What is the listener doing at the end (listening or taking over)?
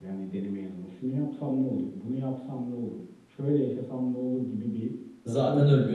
listening